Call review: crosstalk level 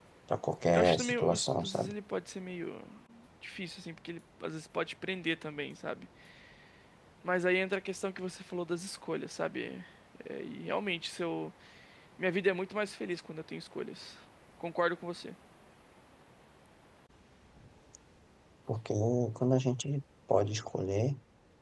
present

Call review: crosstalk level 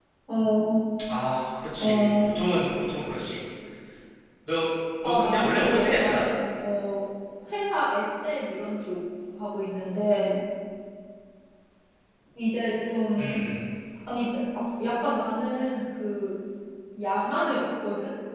present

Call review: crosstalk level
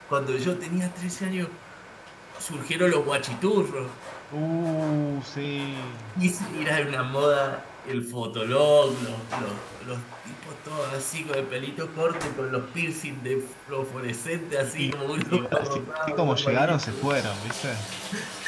present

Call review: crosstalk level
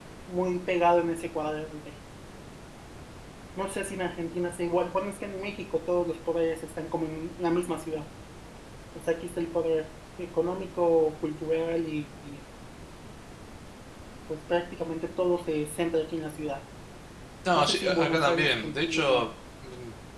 present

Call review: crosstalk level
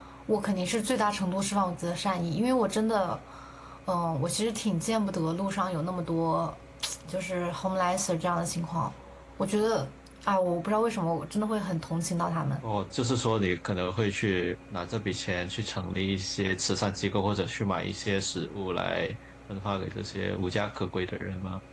none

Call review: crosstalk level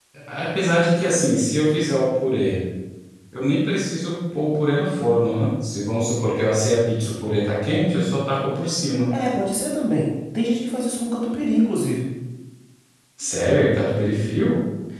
none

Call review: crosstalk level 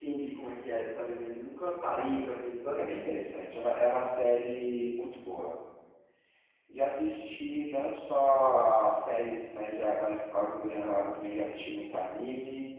none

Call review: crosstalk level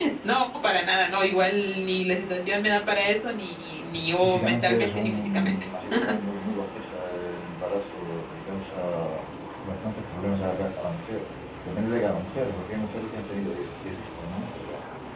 present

